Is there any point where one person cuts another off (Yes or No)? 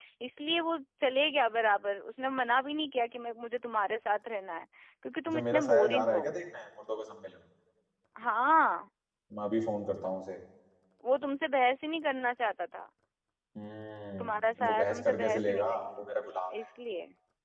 Yes